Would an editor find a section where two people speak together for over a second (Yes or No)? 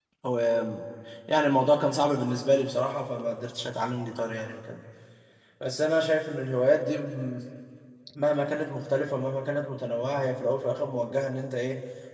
No